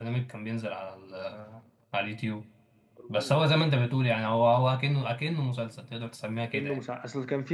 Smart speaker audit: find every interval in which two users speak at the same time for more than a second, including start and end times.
none

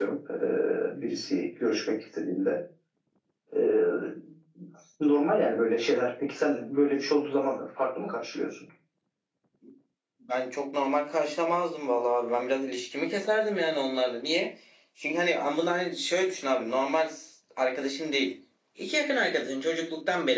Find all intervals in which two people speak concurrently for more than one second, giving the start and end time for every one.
none

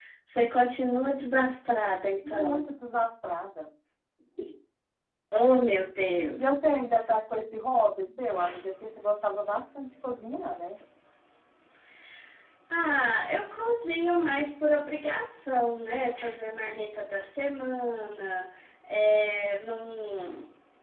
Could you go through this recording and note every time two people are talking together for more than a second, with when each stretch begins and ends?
none

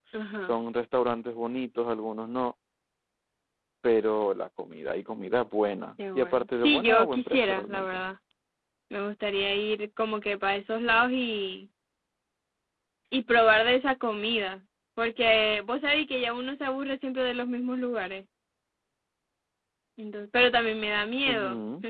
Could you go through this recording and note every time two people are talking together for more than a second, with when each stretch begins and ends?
6.2-8.0

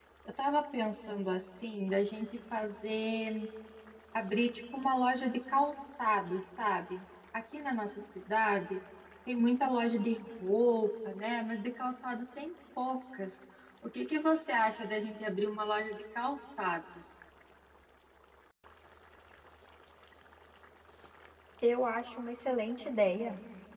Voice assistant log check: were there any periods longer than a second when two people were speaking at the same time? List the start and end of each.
none

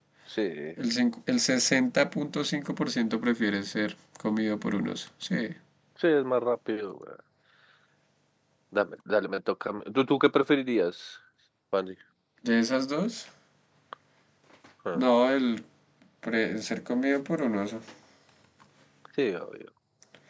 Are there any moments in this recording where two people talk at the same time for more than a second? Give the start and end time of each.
none

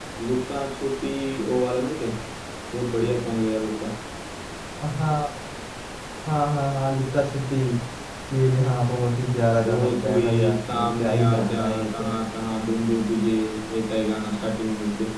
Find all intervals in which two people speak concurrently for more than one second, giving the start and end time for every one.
9.6-12.1

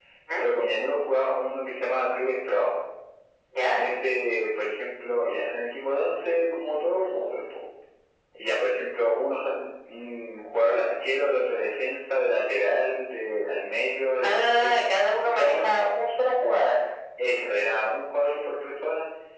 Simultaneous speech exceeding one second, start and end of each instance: none

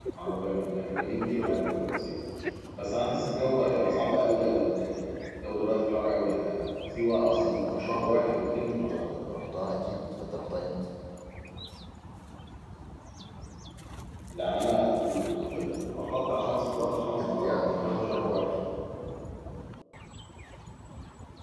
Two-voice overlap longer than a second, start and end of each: 7.2-9.0, 17.2-18.5

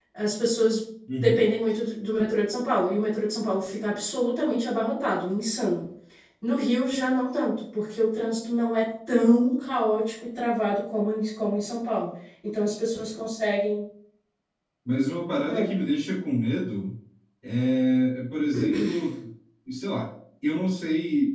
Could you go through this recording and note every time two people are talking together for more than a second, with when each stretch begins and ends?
none

